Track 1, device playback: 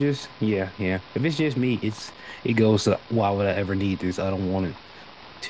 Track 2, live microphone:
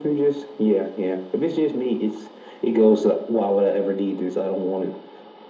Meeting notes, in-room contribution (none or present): none